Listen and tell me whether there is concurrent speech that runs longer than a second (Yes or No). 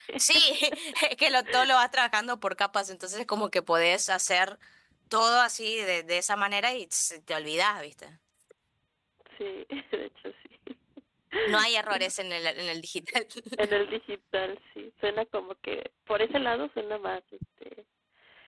No